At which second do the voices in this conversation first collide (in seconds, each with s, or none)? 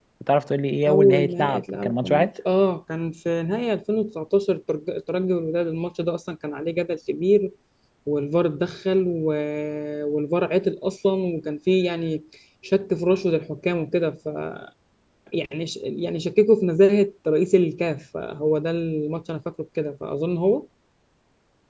0.9 s